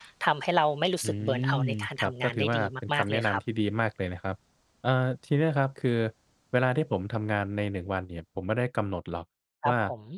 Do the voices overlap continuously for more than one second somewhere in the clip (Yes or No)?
Yes